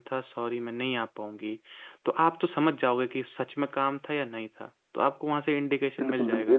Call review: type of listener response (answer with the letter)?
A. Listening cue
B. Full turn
B